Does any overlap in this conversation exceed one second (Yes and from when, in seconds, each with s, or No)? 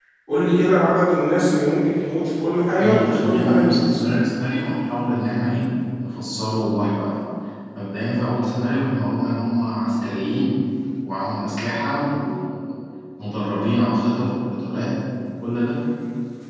Yes, from 2.7 s